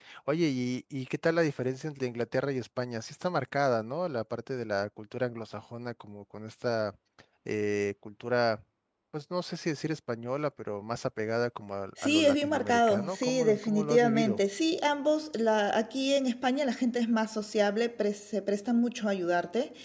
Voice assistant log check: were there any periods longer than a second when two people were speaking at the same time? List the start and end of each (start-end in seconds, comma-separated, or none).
12.0-14.4